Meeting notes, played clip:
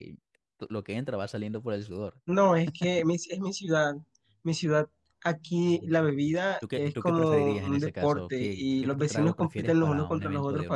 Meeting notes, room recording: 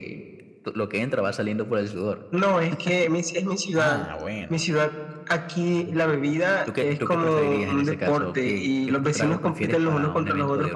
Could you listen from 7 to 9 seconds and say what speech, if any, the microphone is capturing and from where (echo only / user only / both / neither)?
echo only